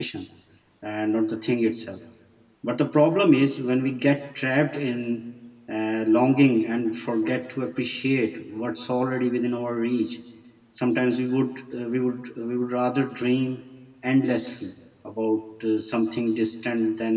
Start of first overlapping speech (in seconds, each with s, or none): none